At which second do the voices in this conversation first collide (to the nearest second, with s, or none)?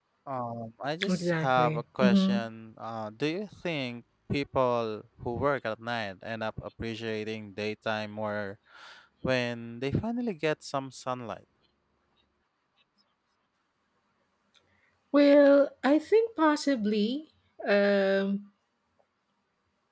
1 s